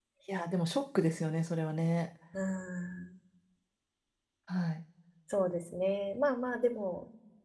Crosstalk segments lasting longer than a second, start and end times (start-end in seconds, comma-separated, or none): none